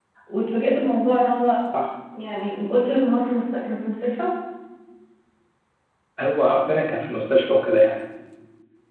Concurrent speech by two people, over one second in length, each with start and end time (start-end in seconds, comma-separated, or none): none